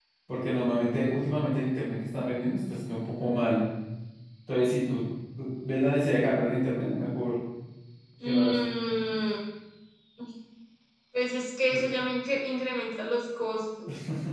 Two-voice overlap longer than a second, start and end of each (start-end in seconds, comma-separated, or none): none